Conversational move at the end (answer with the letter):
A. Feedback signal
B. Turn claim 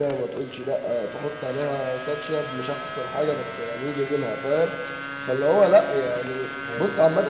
A